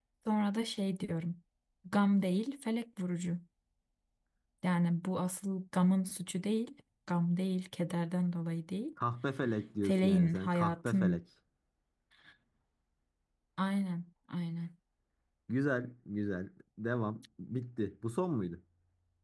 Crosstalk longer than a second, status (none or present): present